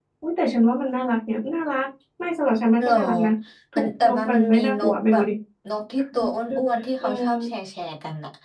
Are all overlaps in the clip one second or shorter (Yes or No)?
No